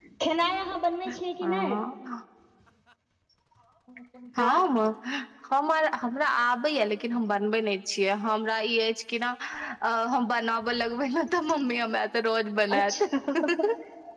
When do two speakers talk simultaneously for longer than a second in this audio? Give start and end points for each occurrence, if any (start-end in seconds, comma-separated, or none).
none